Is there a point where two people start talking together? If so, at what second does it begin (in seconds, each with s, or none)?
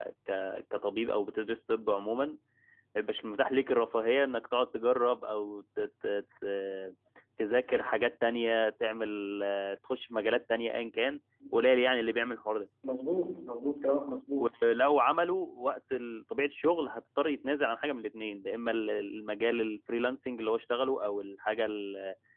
none